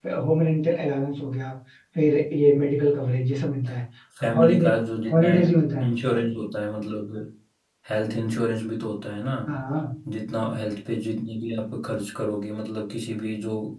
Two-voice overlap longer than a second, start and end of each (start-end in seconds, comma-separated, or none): none